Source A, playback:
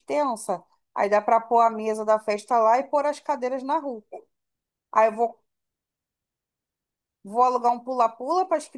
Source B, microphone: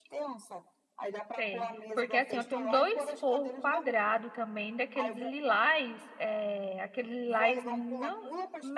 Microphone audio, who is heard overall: both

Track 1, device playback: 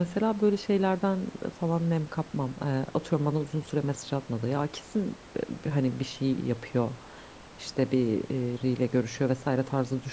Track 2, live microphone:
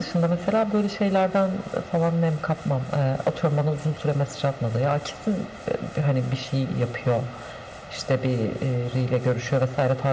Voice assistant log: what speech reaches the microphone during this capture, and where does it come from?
echo only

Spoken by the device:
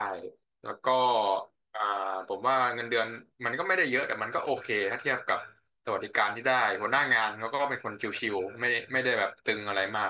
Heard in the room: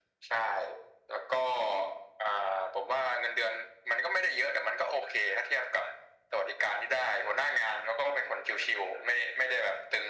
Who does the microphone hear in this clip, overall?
echo only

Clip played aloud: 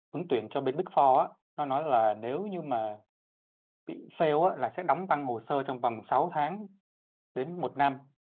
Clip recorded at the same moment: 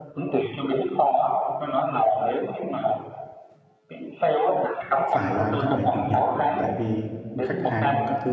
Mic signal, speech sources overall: both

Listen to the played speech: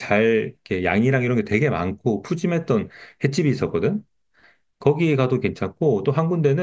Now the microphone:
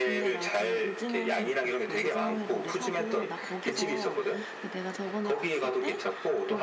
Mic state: both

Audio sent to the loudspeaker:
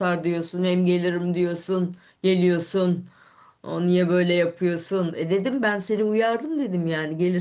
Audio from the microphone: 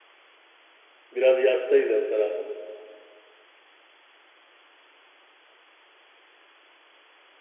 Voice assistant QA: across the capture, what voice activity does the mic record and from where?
user only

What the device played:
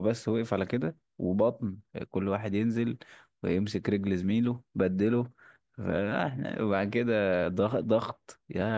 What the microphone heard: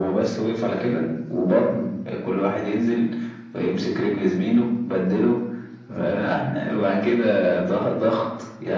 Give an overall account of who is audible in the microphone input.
echo only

